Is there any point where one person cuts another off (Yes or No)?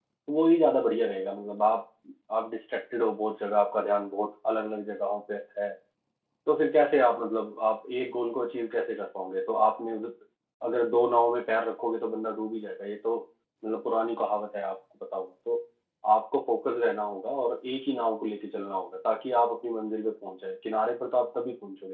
No